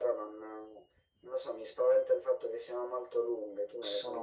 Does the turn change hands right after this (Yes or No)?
Yes